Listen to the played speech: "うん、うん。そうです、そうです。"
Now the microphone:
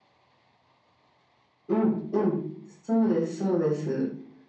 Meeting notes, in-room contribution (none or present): none